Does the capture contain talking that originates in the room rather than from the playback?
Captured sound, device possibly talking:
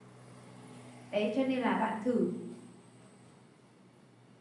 Yes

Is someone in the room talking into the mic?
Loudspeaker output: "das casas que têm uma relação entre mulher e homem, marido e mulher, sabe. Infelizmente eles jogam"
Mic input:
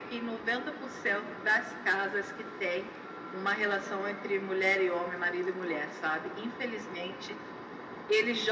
No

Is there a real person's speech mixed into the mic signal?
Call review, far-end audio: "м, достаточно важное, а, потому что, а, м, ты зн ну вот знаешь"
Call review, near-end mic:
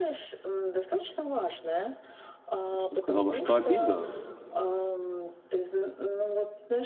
Yes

